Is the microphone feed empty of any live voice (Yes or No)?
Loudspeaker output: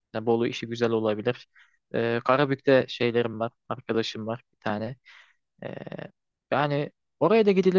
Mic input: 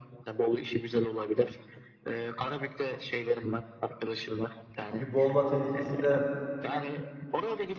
No